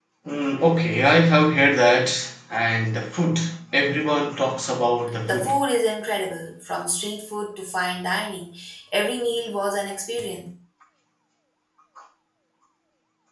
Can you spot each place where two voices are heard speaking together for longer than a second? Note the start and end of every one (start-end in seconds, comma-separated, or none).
none